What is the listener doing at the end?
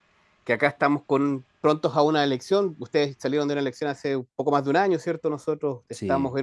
listening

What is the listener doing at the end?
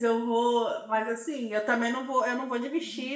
listening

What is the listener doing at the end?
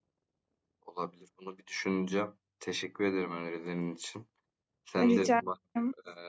listening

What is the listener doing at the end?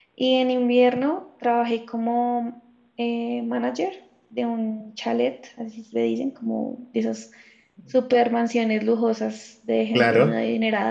listening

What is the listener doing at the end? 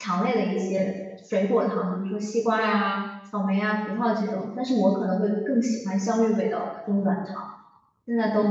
taking over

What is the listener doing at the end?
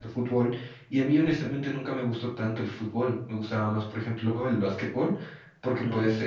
listening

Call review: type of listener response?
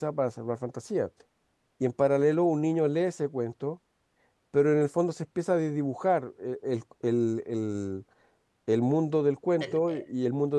listening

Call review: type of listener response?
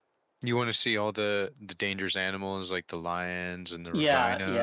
taking over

